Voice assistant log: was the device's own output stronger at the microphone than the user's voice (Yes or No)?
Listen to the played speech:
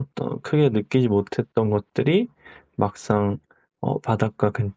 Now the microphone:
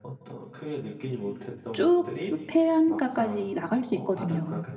No